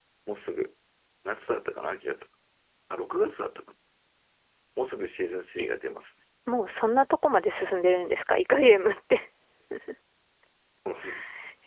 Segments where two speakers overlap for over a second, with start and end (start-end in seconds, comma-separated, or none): none